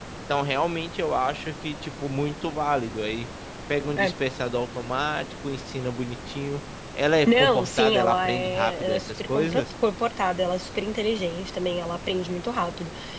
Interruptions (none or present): present